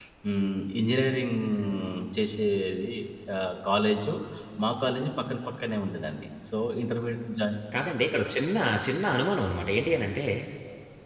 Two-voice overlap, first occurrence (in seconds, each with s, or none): none